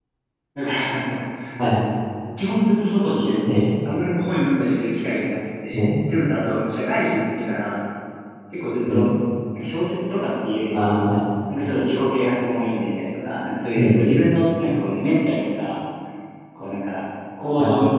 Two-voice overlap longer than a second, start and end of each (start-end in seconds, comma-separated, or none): none